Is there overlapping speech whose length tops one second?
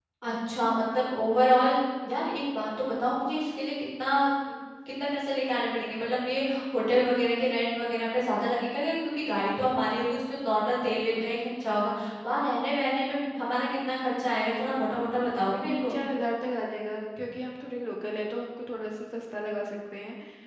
No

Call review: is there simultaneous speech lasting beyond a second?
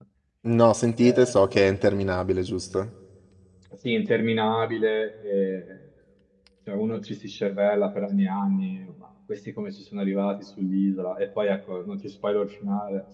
No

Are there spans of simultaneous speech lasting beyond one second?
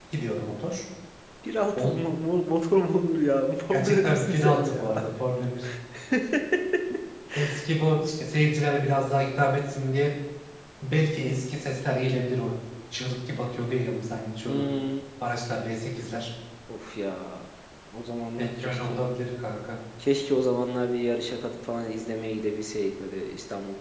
Yes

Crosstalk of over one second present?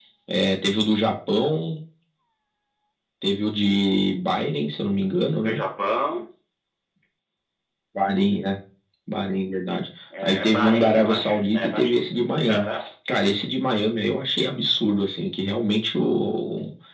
Yes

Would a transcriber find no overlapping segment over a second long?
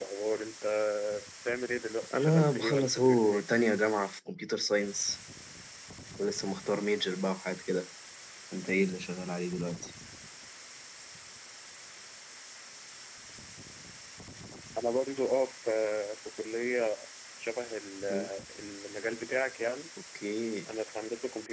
No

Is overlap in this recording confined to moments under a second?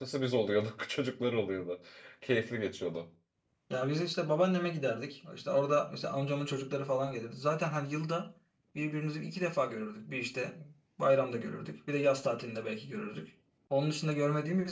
Yes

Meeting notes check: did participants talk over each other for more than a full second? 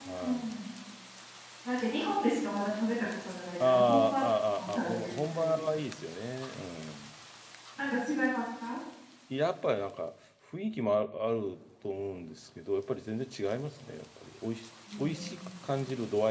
Yes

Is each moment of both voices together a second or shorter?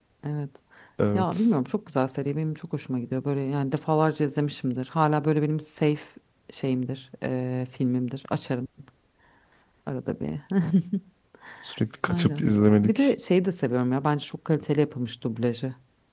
Yes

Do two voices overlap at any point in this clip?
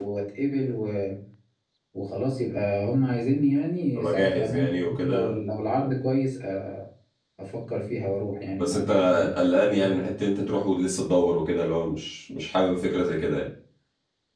Yes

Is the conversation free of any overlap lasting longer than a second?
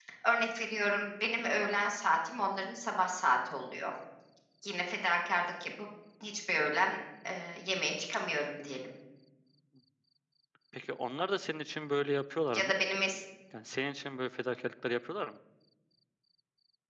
Yes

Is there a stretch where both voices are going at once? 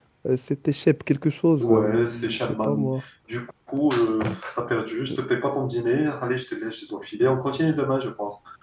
Yes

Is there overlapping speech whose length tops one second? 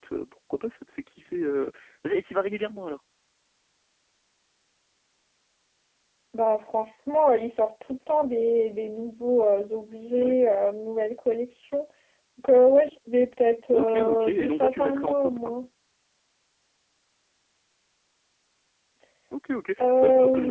Yes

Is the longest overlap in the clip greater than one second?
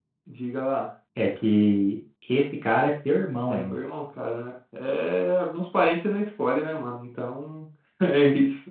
No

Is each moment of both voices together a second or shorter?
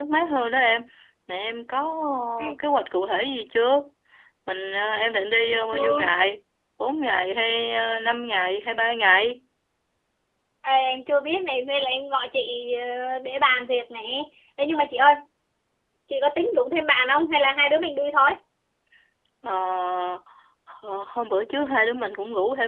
Yes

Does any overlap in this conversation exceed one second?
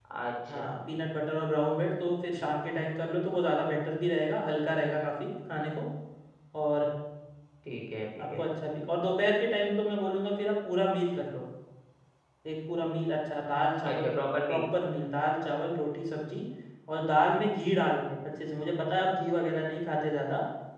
No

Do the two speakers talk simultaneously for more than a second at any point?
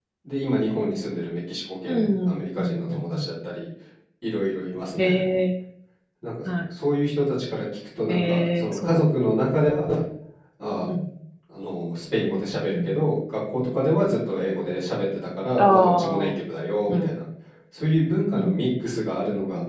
Yes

